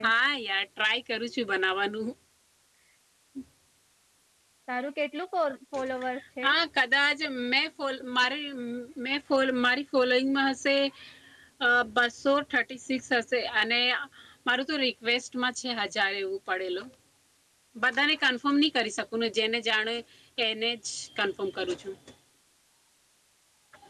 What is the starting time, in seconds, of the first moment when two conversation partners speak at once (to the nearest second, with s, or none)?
none